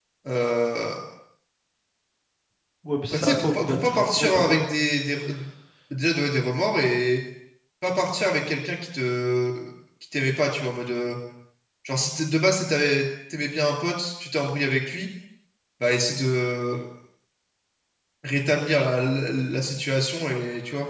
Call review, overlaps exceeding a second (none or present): present